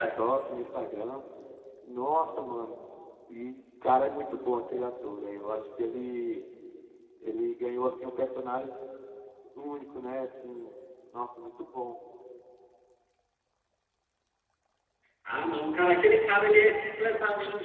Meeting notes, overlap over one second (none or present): none